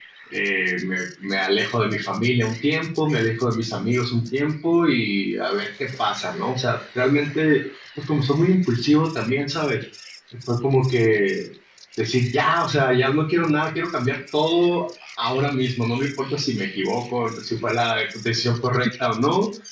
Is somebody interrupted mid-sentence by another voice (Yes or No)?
No